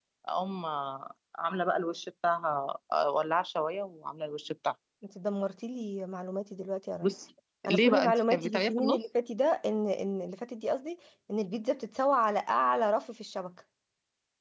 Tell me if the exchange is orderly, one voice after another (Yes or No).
No